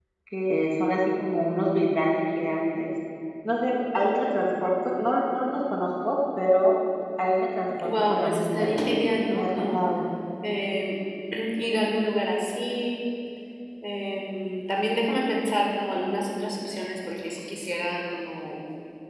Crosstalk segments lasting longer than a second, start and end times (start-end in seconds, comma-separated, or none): 7.8-9.8